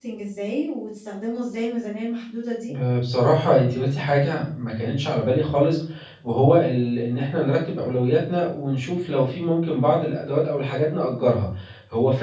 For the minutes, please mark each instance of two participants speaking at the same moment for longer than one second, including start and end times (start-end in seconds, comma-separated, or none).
none